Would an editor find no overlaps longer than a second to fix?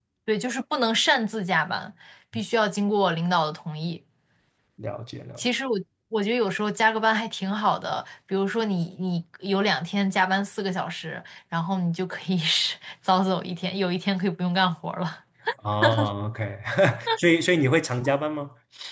Yes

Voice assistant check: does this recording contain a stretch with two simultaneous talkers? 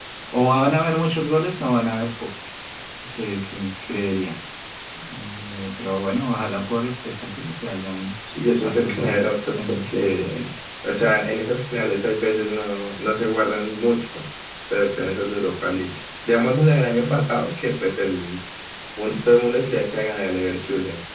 Yes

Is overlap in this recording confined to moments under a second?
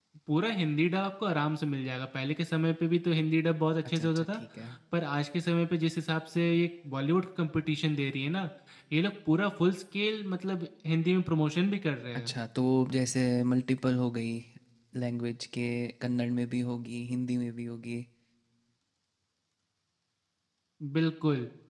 Yes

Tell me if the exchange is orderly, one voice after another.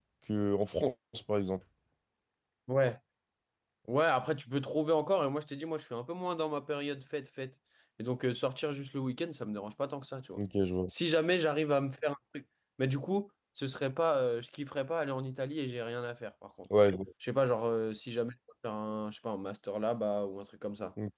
Yes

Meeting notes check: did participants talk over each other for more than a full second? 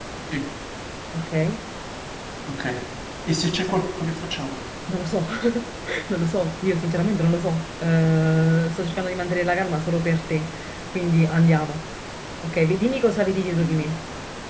No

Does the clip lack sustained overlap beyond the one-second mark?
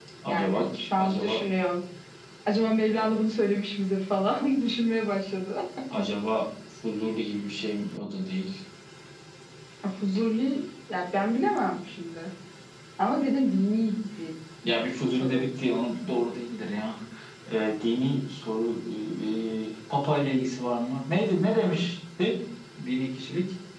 Yes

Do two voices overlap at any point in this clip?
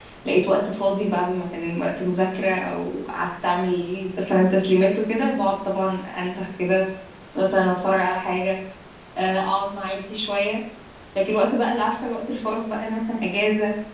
No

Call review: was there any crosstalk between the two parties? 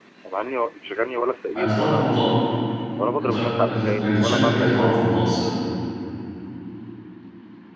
Yes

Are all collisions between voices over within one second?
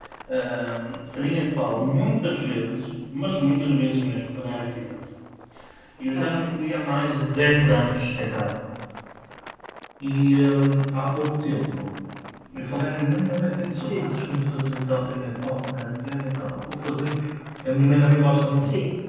Yes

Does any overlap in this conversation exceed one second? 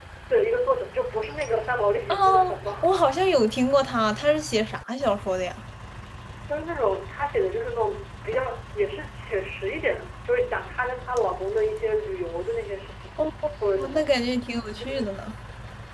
No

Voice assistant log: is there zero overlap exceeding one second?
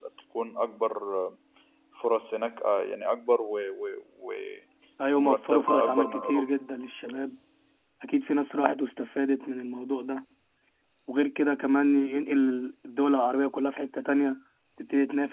No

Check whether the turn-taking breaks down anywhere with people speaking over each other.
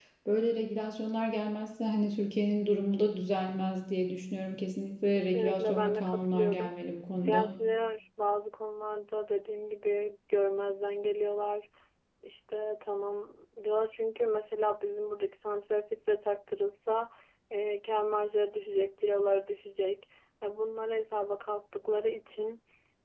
Yes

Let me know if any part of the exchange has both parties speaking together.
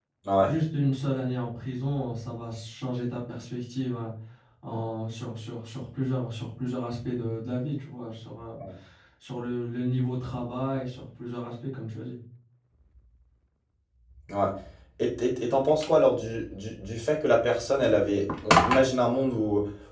No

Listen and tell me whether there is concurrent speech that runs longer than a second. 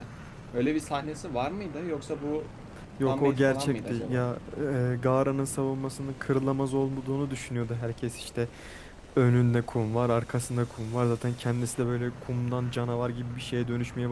Yes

